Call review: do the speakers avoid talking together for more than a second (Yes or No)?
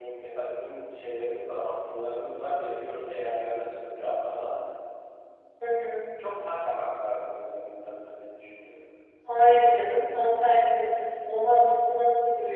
Yes